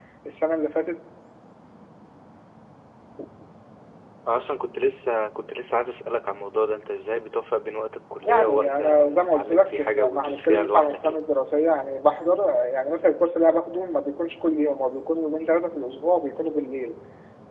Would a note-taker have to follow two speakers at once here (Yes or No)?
Yes